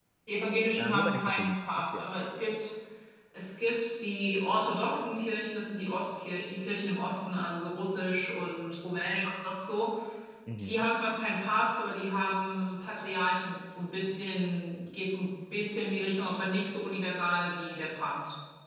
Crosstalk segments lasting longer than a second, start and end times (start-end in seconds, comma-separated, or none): 0.8-2.1